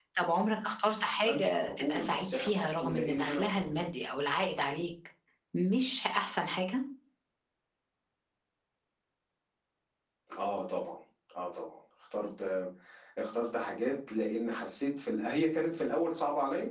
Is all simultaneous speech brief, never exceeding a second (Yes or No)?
No